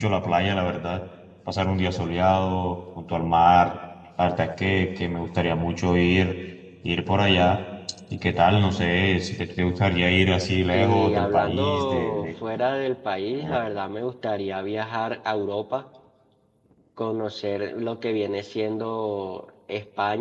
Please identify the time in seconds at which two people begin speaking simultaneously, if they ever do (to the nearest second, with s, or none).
11 s